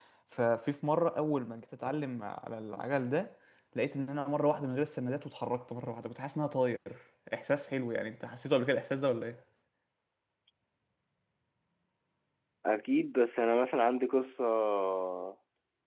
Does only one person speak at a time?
Yes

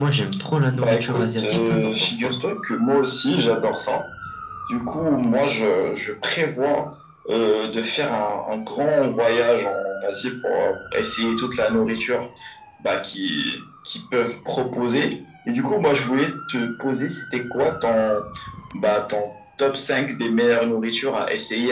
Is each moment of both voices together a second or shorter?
No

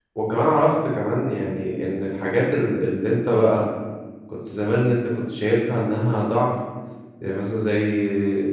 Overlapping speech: No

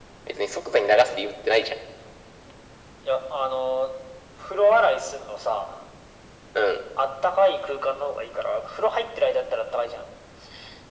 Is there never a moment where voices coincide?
Yes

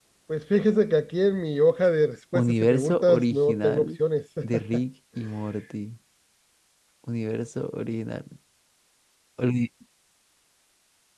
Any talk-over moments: Yes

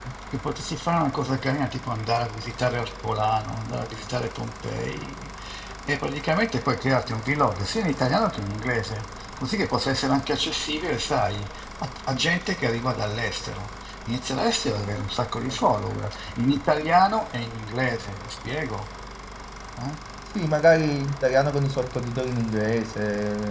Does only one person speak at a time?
Yes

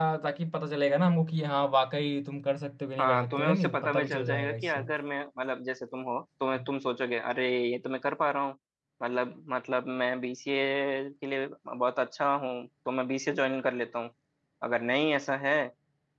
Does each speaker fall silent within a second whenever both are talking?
No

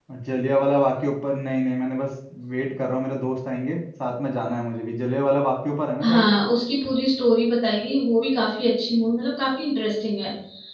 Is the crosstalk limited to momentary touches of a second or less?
Yes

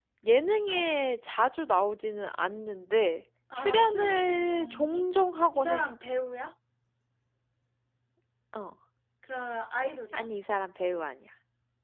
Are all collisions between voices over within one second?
No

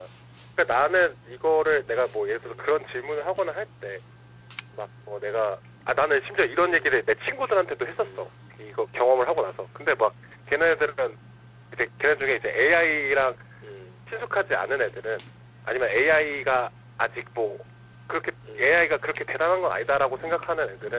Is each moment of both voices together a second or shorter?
Yes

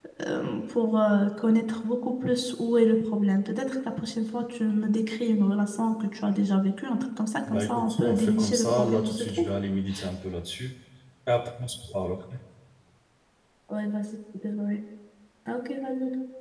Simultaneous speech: Yes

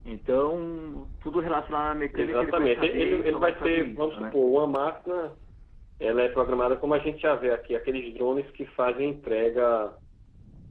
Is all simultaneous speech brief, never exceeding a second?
No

